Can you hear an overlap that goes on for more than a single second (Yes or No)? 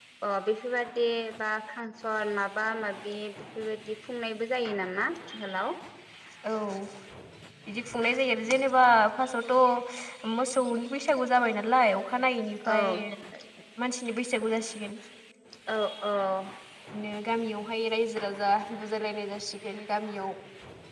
No